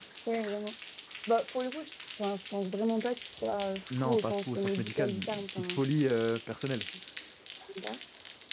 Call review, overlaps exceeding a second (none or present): present